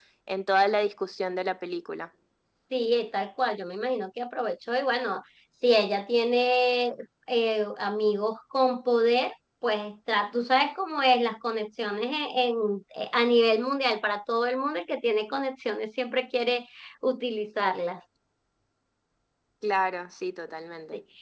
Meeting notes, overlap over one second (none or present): none